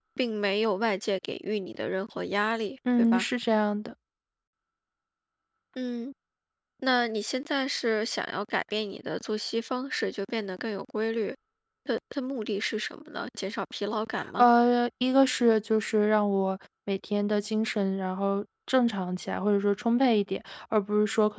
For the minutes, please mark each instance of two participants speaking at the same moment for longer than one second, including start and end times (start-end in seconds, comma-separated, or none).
none